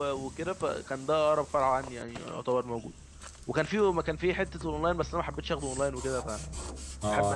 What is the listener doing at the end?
taking over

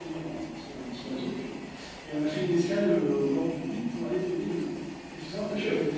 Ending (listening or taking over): listening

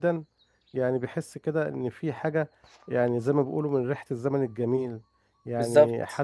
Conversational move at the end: listening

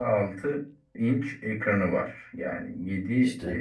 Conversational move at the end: listening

